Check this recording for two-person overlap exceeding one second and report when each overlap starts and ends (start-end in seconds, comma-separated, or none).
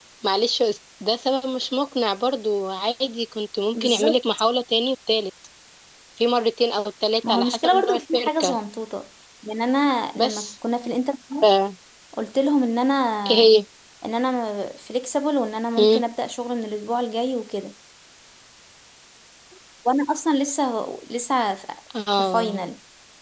7.3-8.6